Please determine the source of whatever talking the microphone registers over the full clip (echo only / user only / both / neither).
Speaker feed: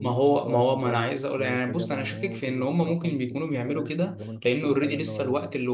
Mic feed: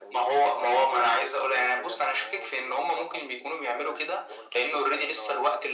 echo only